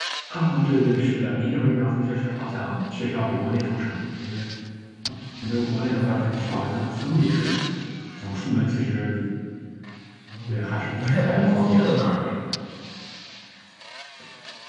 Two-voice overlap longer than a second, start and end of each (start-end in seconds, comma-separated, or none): 10.5-11.9